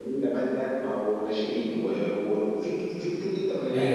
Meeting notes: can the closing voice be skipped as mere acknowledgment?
No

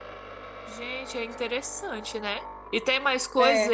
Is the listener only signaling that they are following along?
Yes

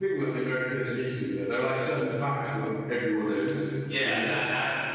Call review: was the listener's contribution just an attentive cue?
No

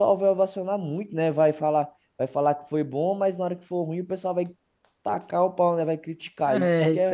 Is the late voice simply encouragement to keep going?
No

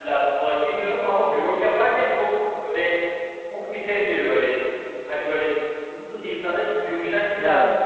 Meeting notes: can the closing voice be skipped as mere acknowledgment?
Yes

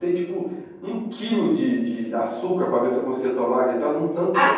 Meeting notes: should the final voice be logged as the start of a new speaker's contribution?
Yes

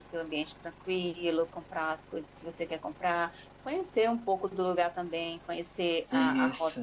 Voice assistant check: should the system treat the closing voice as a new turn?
No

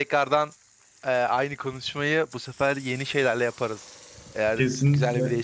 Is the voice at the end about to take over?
Yes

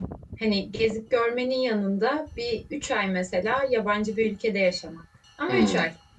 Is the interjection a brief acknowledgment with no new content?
No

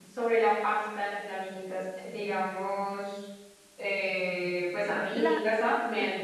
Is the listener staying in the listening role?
Yes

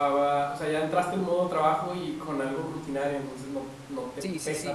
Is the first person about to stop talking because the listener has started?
Yes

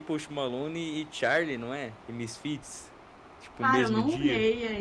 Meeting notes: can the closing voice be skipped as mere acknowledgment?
No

